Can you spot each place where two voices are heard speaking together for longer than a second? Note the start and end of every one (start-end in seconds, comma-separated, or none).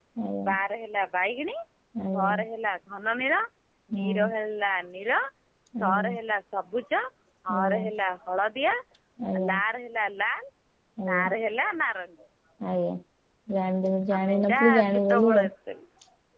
14.2-15.4